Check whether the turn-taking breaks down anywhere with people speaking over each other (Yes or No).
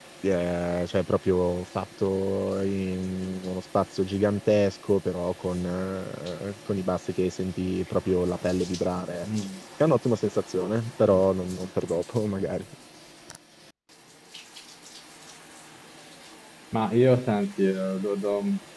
No